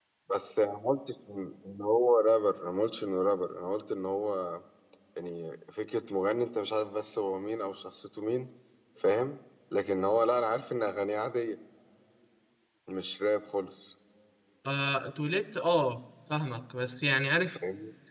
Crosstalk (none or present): none